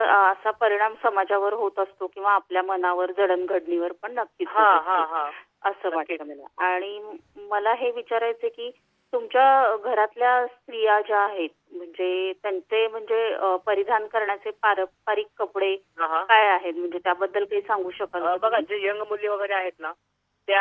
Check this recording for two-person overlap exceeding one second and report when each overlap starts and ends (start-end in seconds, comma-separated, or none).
none